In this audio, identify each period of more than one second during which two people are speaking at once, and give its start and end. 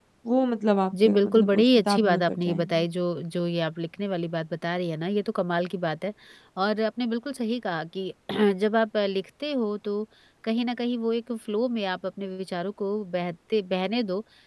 1.0-2.9

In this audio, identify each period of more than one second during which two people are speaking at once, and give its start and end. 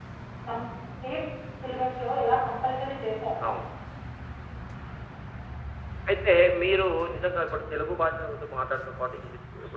none

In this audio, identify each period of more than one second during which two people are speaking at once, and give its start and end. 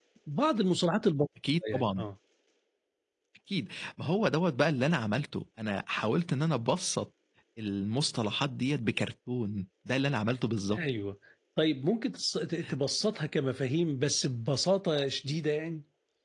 none

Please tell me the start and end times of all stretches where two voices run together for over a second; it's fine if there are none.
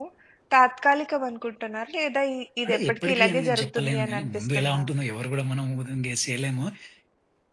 2.6-4.8

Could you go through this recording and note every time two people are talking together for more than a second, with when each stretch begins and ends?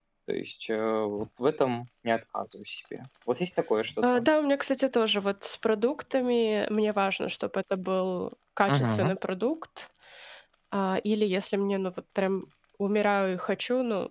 none

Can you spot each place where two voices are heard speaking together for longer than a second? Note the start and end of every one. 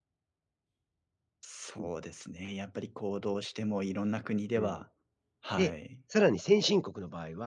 none

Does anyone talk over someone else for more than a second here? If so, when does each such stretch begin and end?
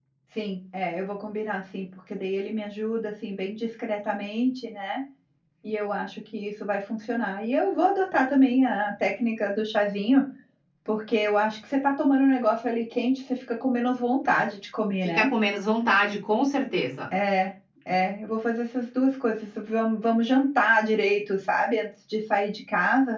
none

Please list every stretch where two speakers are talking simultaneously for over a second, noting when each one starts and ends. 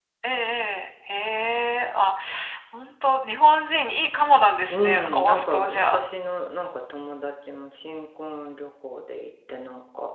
4.7-6.0

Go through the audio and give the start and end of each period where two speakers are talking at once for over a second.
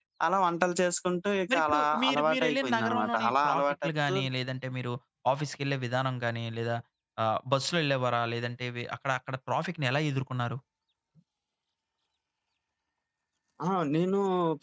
1.5-4.2

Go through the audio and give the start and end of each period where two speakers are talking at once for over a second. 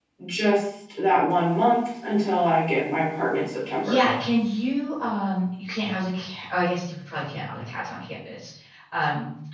none

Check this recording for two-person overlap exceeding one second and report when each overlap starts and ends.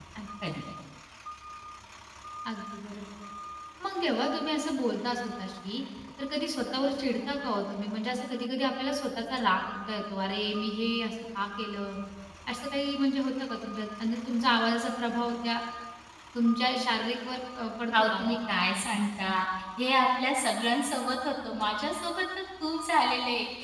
none

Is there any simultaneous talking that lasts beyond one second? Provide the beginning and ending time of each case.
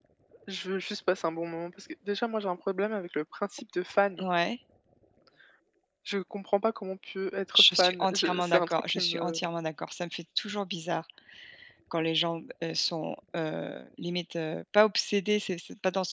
7.6-9.4

